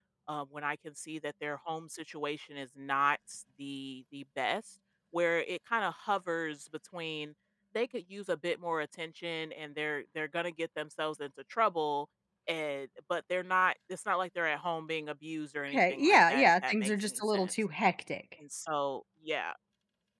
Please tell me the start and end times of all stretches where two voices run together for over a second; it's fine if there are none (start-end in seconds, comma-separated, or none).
15.7-17.5